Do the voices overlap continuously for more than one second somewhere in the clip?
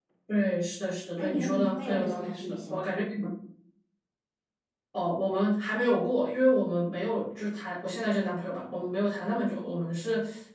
Yes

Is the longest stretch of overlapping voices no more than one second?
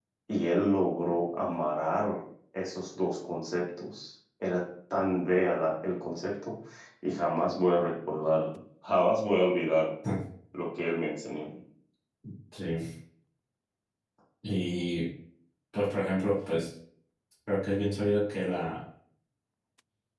Yes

